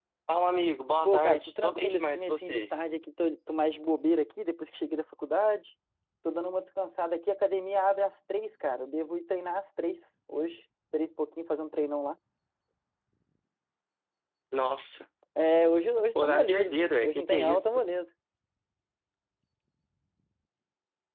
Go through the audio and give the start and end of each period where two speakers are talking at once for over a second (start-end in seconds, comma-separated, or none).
1.0-2.7, 16.2-17.8